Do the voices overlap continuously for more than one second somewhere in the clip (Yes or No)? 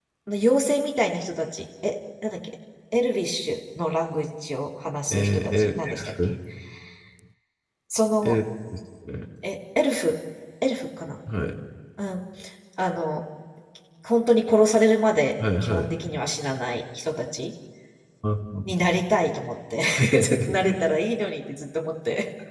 Yes